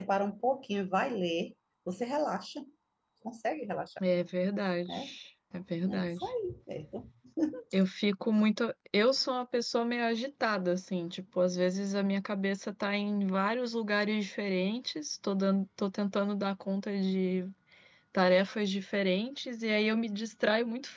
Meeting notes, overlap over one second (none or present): none